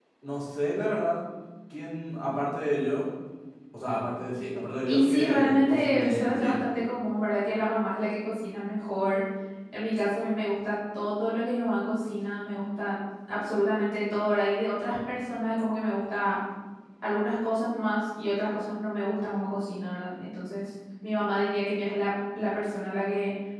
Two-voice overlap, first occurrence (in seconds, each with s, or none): 4.9 s